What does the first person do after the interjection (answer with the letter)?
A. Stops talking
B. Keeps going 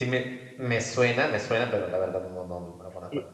A